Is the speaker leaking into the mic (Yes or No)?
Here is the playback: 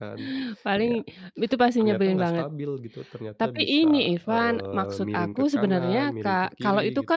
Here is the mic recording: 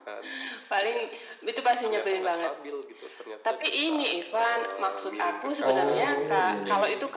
Yes